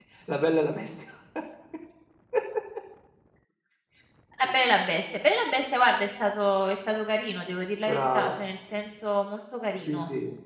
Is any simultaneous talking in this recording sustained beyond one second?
No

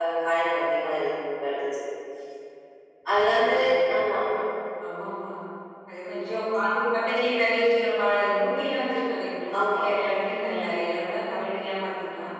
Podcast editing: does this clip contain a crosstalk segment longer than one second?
No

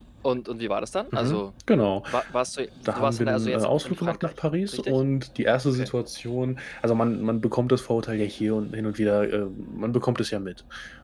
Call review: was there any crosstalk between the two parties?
Yes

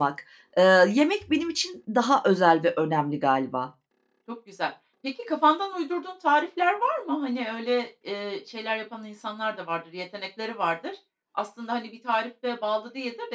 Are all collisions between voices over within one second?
Yes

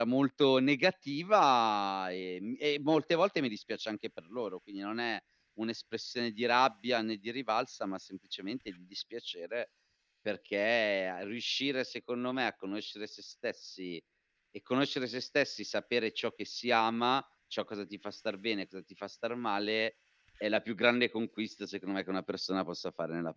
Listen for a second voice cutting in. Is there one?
No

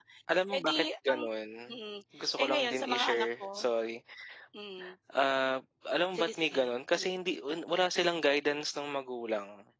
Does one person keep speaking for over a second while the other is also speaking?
Yes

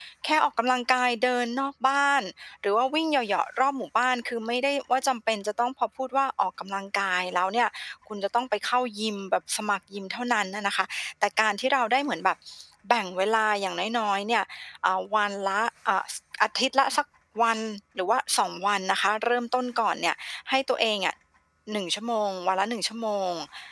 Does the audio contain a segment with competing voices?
No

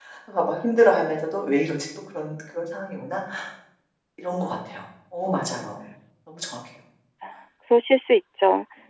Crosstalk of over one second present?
No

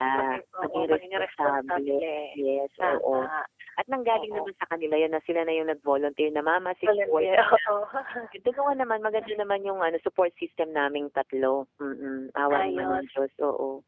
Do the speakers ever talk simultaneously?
Yes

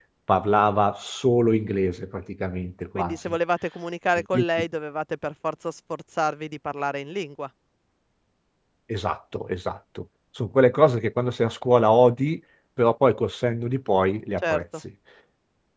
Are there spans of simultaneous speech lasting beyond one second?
No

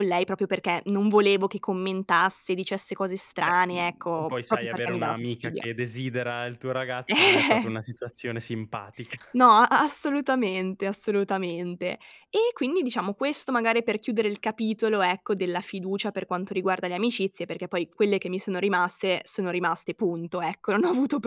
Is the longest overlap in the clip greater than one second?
Yes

